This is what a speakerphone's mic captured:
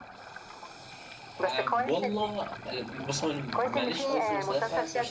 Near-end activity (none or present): present